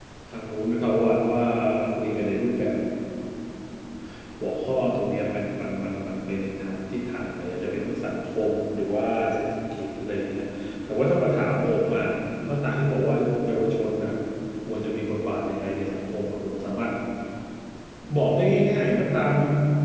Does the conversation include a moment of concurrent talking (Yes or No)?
No